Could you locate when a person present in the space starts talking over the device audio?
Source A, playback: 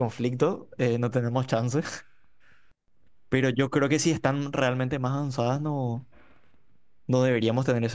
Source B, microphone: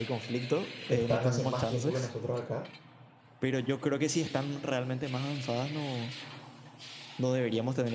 0.9 s

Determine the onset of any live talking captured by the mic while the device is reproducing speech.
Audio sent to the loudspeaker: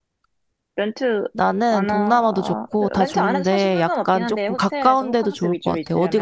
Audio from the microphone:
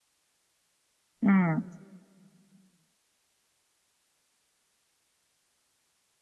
1.2 s

